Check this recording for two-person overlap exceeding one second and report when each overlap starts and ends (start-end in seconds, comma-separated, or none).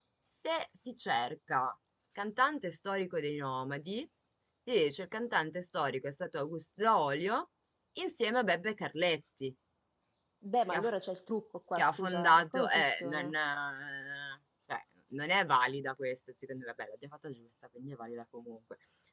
11.8-13.3